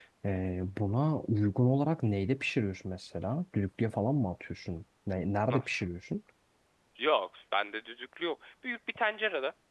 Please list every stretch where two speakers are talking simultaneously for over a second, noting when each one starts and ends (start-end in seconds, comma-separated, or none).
none